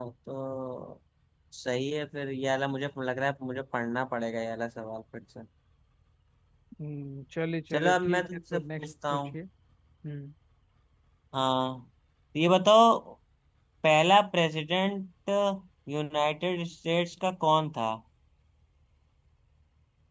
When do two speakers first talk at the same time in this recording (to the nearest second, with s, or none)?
8 s